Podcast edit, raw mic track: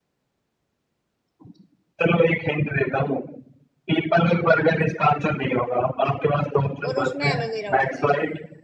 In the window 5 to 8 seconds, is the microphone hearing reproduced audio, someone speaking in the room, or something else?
both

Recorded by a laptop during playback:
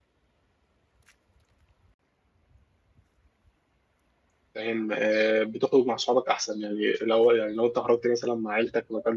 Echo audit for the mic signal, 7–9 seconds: user only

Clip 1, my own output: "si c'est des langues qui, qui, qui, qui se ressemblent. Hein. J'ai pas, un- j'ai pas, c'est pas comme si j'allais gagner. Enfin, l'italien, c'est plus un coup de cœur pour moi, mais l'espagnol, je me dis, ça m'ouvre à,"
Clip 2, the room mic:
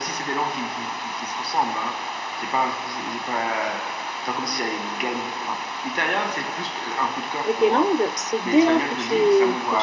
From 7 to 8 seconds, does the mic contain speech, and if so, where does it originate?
both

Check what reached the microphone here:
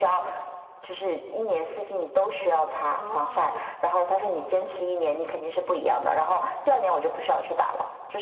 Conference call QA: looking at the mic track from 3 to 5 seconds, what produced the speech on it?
both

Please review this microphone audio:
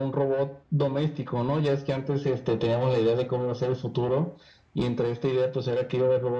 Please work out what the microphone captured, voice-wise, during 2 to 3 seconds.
echo only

